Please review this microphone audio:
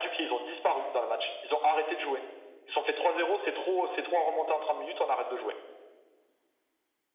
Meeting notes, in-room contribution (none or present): none